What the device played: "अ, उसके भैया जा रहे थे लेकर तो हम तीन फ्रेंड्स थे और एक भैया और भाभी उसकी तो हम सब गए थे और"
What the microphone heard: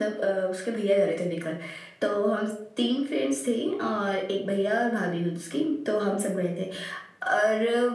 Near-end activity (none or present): none